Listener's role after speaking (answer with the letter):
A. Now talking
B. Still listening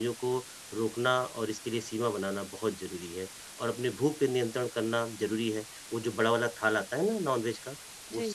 B